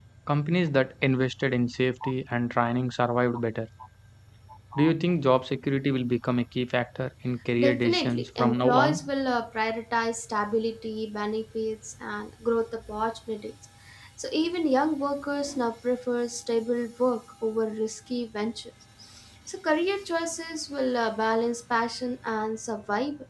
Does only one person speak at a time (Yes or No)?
No